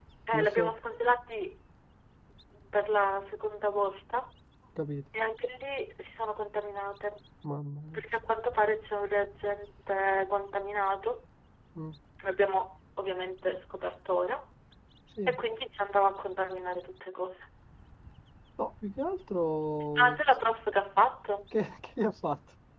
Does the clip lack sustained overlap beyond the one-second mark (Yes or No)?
Yes